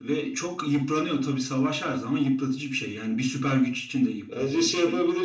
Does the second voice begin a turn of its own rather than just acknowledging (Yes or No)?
Yes